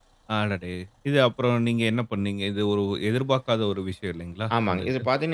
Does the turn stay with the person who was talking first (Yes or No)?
No